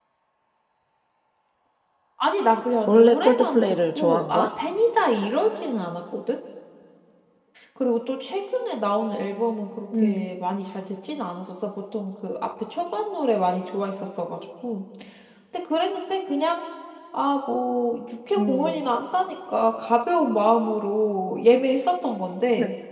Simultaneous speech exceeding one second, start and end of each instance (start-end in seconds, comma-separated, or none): 2.9-4.5